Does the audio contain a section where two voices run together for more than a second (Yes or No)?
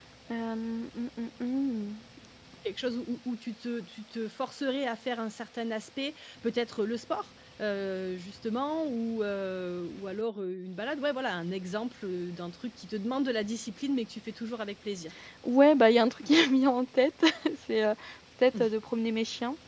No